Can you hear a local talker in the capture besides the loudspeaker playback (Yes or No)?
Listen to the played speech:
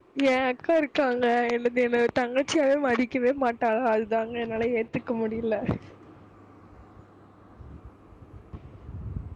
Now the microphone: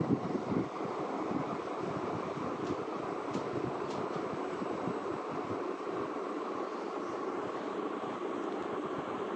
No